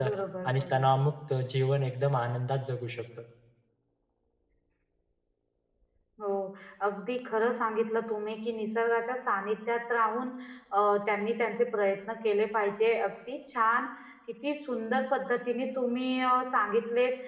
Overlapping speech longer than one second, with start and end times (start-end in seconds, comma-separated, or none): none